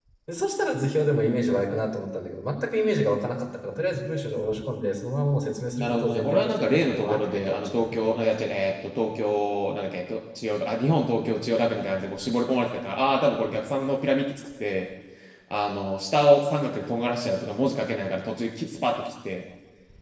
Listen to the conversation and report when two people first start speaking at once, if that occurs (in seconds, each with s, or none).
5.8 s